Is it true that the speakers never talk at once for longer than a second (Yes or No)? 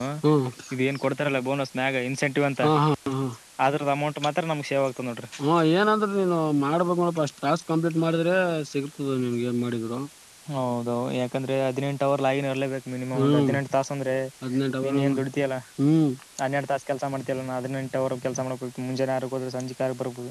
Yes